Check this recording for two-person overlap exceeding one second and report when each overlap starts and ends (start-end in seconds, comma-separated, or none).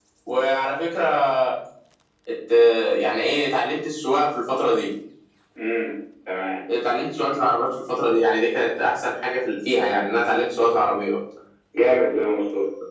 none